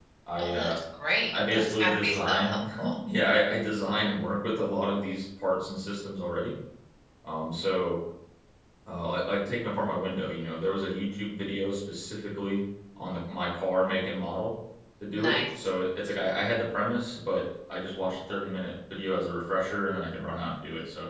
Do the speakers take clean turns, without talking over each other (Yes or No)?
No